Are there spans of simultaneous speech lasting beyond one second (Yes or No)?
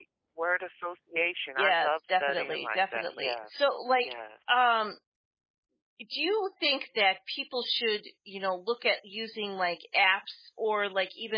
Yes